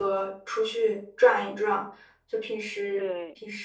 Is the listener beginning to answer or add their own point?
No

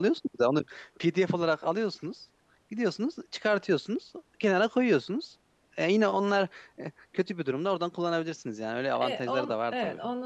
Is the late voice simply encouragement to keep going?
No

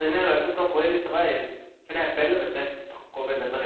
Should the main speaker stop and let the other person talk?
Yes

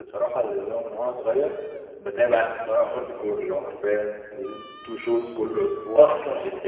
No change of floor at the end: Yes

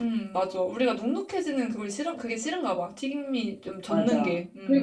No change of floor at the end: No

